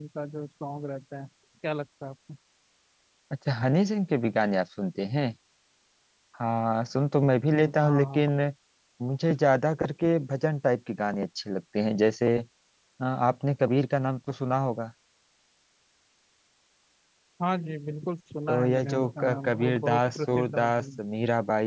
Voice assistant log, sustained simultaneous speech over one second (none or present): present